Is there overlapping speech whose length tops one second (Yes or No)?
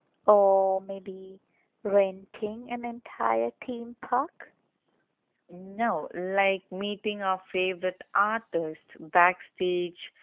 No